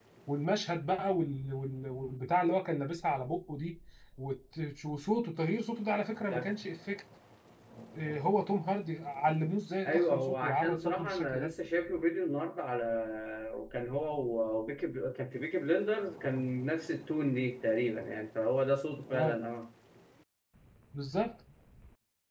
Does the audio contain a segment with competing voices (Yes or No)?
Yes